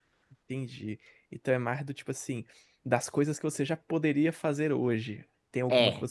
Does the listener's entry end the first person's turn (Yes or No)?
No